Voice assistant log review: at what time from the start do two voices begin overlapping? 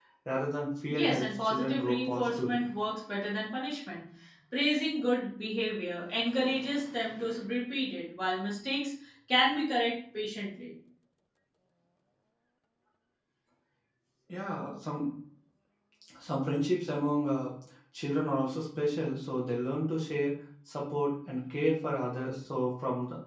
0.9 s

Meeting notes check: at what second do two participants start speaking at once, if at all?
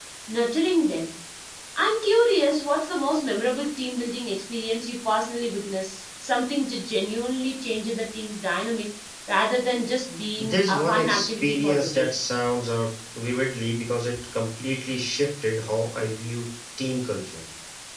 10.4 s

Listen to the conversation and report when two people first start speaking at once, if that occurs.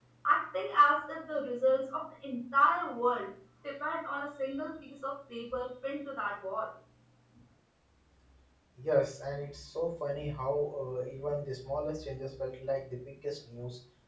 none

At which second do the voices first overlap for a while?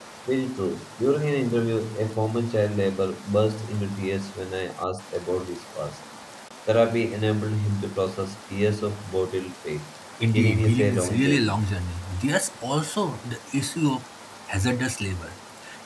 10.2 s

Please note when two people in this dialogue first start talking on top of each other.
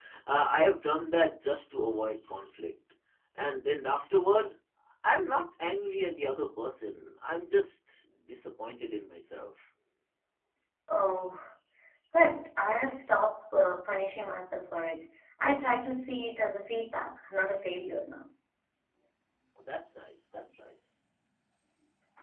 none

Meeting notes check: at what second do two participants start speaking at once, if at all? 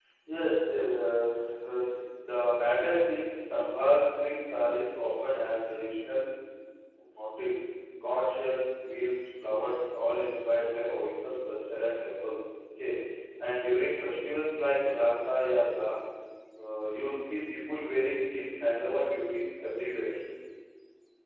none

